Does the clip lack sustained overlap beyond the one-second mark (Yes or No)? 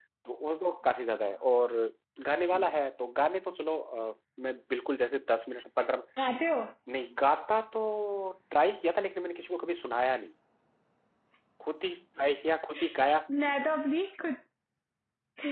Yes